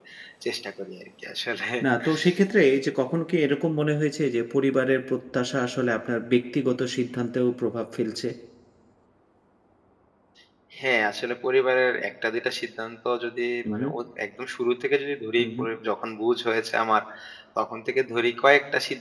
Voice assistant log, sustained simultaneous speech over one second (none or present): none